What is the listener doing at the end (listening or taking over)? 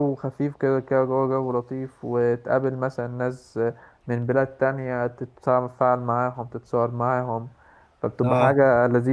listening